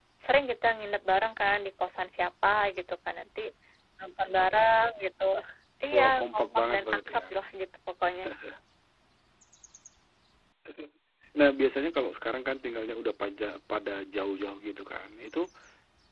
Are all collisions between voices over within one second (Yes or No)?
No